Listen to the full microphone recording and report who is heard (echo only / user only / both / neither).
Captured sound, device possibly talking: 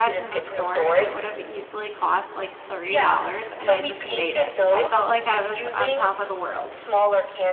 both